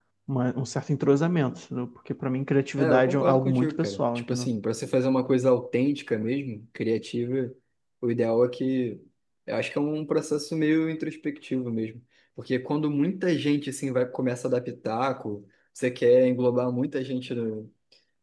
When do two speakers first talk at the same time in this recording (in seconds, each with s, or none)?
2.8 s